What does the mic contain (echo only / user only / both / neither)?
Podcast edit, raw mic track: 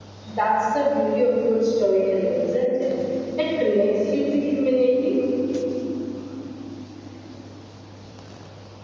user only